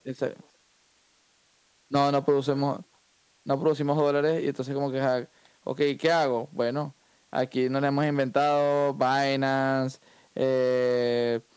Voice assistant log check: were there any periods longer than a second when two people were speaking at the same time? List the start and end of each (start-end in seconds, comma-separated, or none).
none